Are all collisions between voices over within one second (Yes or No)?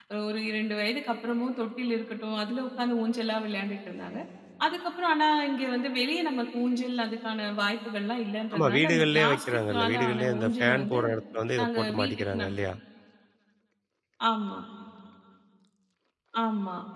No